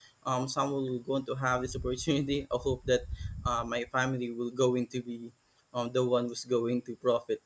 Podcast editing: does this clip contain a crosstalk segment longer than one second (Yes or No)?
No